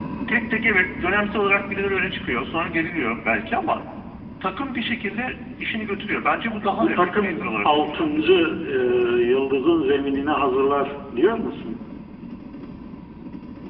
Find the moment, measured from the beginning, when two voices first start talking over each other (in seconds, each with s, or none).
6.6 s